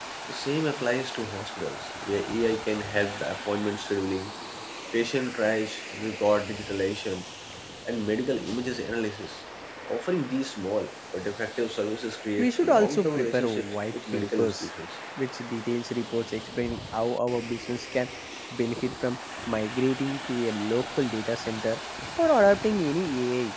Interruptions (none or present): present